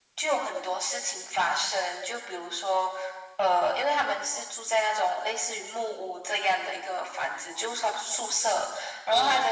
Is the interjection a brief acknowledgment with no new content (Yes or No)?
Yes